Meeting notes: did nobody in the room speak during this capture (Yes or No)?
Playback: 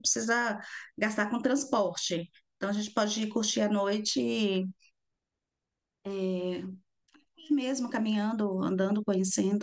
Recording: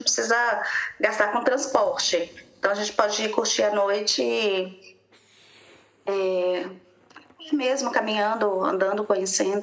Yes